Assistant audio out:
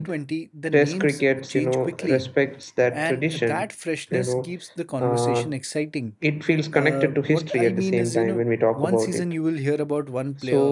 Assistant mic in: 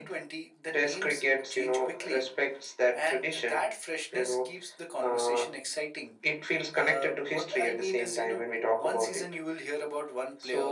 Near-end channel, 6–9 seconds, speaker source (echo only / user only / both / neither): echo only